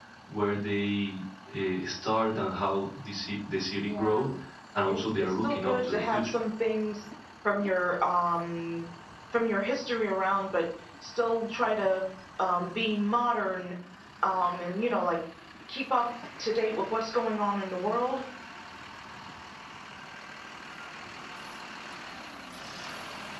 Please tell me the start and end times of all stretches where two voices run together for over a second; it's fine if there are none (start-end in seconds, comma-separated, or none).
4.9-6.3